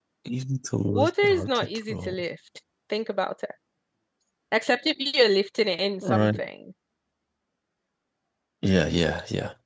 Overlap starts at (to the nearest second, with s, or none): 1 s